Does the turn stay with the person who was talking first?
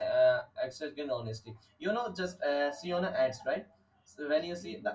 Yes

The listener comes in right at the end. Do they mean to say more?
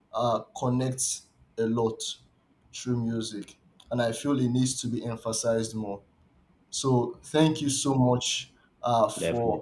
No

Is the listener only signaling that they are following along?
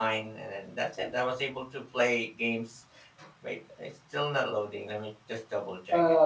No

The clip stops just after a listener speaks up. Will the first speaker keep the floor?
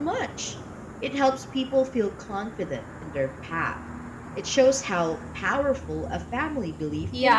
No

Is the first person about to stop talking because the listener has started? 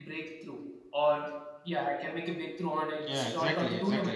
Yes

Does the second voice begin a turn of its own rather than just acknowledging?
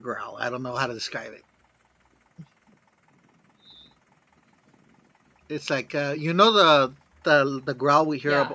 No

